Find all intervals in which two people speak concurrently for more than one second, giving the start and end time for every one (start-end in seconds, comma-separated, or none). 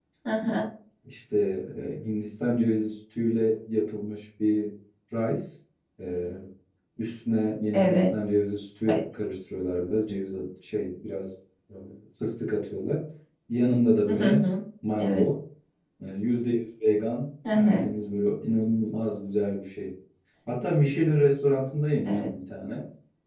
none